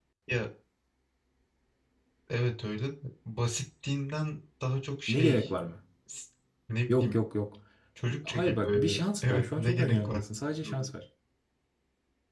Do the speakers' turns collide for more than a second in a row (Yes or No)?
Yes